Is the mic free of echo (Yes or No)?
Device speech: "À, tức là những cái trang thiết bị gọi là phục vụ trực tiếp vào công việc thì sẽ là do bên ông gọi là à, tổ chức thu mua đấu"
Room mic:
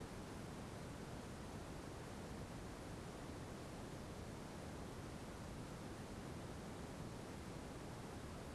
Yes